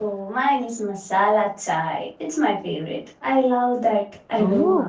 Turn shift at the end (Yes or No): Yes